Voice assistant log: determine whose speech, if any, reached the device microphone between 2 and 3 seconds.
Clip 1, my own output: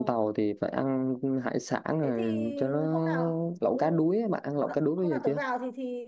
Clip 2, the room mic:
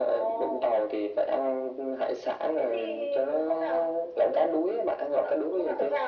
echo only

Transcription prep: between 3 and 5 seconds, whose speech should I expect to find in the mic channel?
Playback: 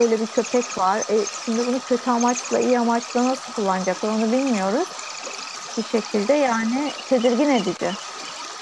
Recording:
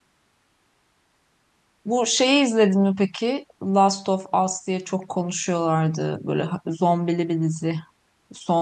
user only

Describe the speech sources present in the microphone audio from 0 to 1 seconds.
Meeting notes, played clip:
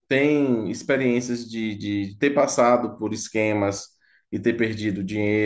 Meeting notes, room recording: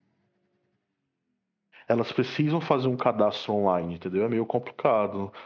neither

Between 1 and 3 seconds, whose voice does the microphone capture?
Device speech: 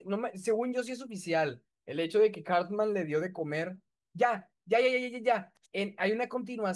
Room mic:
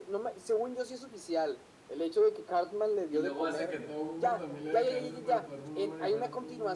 echo only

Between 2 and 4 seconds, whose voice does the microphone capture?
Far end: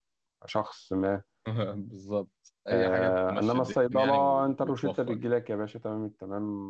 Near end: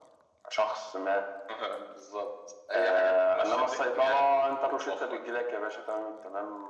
echo only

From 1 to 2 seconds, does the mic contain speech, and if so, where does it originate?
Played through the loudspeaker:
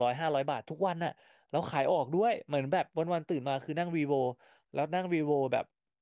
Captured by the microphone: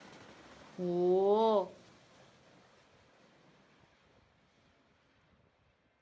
user only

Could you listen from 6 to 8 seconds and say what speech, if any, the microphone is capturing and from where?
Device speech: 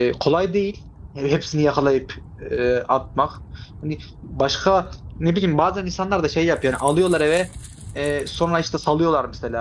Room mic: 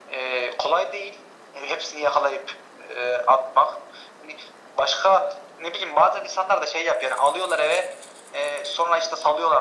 echo only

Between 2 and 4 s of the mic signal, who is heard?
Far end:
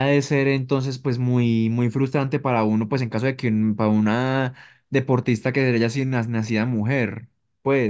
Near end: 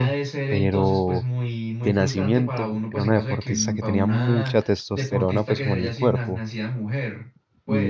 both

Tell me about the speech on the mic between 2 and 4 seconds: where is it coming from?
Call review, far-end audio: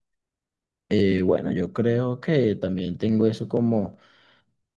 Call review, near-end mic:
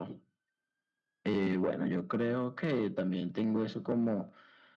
echo only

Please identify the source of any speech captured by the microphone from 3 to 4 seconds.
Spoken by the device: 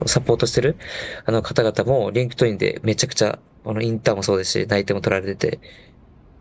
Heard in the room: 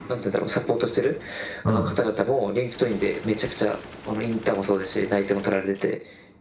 echo only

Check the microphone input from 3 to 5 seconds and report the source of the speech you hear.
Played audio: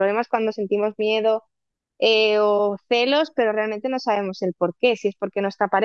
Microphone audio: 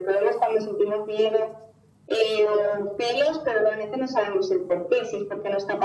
echo only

